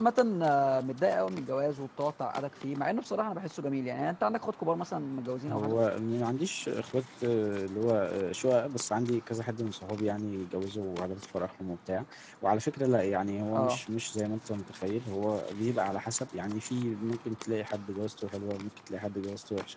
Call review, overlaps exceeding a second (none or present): none